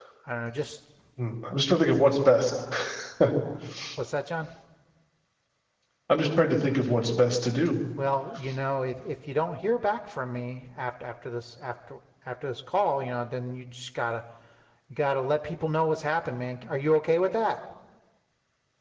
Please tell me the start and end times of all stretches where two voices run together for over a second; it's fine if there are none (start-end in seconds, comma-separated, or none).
none